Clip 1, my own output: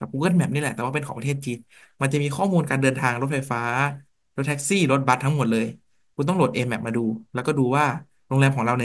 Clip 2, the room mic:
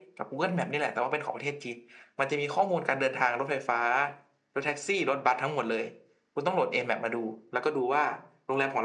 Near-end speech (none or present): none